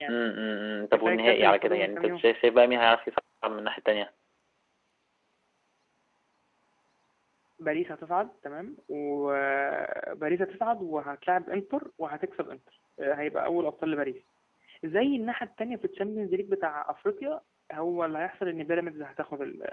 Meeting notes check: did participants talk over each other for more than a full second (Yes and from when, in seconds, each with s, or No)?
Yes, from 0.9 s